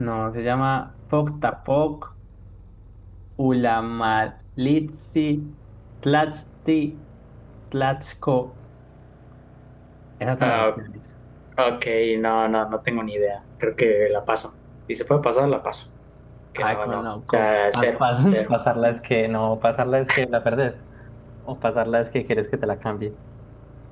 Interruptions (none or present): present